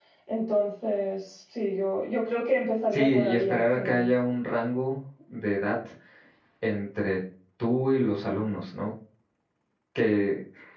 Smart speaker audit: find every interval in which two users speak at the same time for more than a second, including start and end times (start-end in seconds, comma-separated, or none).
2.9-4.1